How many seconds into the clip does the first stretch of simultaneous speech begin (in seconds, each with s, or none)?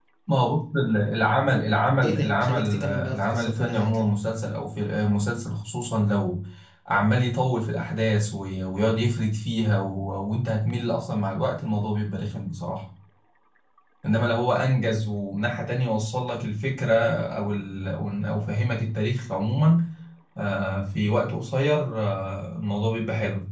2.0 s